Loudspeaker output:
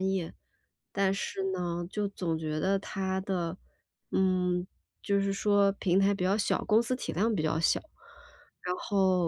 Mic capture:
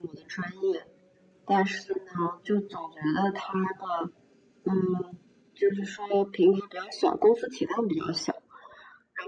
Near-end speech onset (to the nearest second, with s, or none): none